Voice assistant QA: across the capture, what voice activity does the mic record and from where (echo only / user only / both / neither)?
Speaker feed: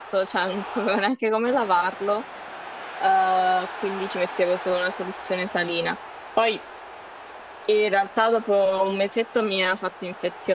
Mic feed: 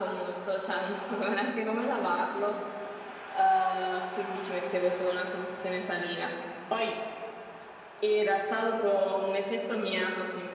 echo only